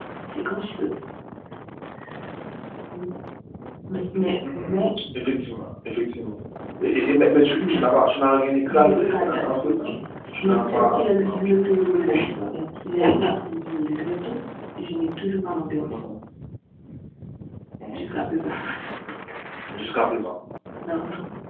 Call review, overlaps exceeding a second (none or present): present